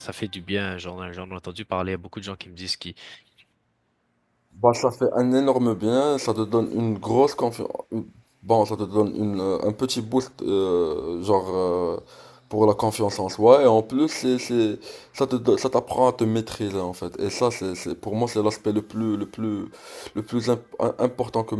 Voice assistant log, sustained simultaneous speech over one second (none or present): none